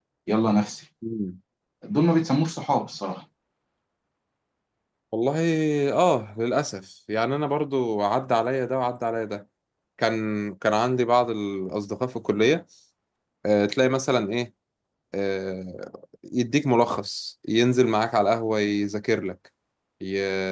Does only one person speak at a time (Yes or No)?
Yes